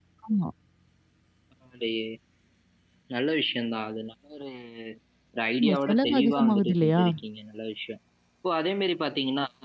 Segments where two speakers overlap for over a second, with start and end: 5.6-7.0

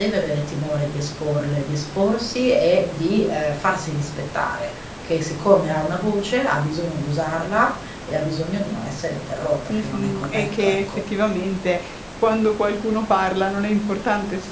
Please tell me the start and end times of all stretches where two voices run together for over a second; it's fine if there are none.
9.7-11.0

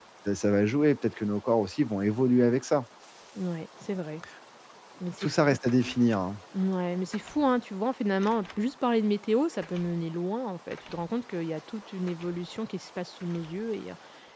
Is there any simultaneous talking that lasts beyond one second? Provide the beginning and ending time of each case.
none

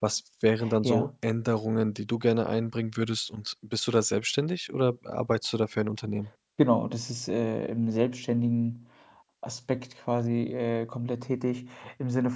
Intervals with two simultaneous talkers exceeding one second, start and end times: none

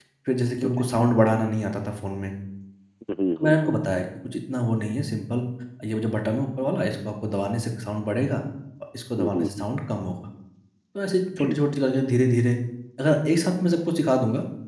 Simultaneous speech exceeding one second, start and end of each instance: none

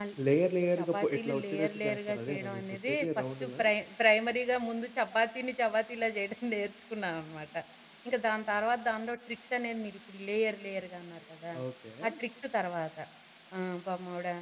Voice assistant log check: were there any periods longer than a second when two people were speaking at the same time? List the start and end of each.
0.8-3.6

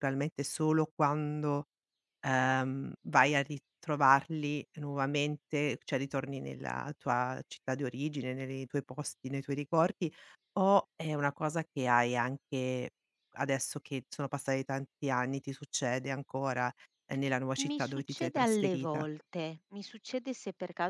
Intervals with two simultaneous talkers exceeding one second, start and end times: 17.6-19.0

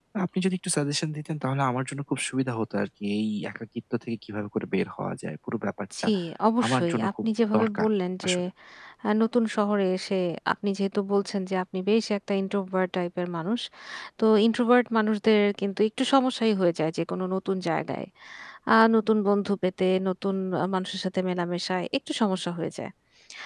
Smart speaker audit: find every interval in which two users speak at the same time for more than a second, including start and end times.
6.7-7.9

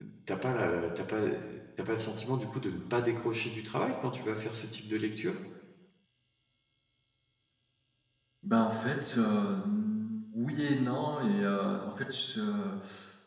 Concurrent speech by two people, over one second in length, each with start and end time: none

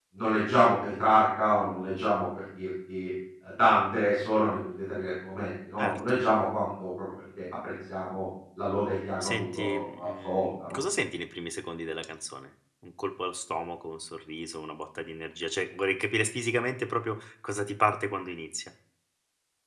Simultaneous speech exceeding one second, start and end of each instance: 9.2-10.8

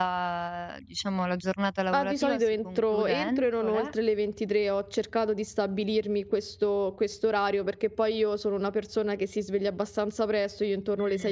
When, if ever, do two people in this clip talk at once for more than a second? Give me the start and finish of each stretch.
1.9-3.9

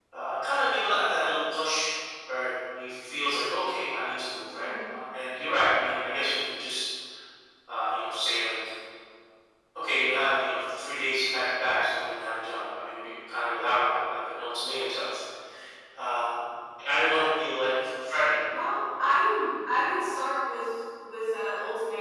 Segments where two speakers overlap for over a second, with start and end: none

